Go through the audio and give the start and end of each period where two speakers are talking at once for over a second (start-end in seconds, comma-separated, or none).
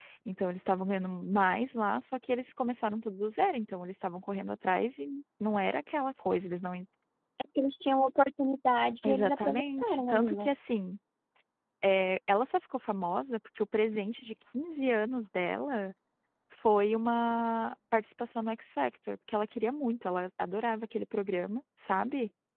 9.0-10.5